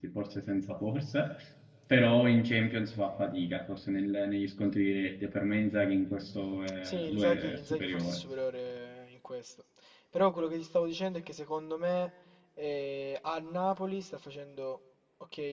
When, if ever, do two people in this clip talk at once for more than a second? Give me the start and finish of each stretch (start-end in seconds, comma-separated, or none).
6.8-8.2